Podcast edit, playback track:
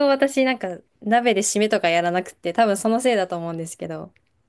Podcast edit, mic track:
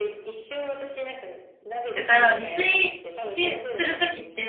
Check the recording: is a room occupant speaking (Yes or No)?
Yes